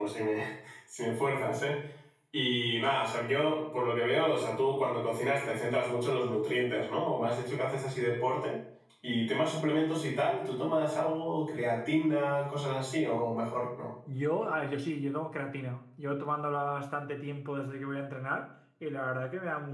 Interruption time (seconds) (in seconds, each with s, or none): none